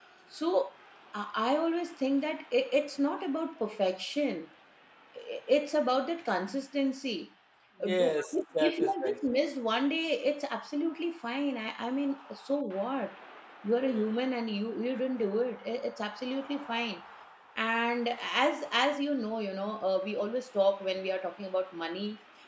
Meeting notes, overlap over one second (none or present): present